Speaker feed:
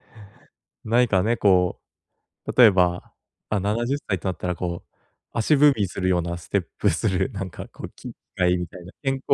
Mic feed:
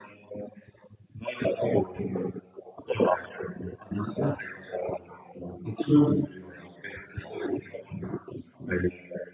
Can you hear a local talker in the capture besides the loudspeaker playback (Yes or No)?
No